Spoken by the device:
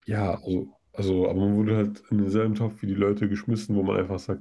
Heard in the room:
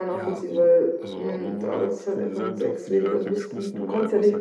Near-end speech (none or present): present